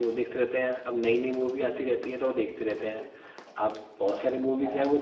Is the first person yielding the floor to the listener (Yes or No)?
No